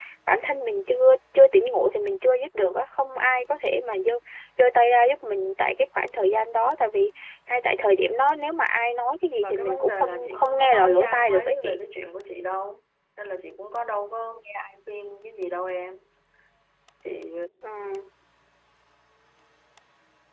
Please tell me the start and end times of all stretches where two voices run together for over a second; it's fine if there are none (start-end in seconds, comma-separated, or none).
9.4-11.8